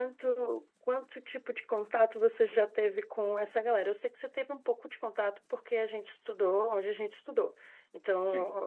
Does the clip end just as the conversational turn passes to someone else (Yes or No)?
No